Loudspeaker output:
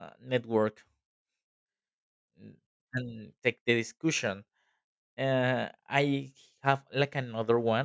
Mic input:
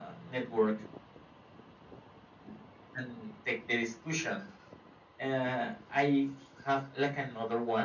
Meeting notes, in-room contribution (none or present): none